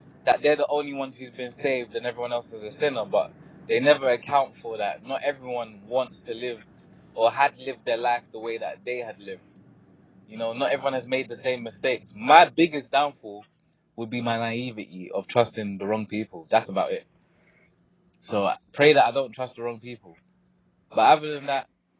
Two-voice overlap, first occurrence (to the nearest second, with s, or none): none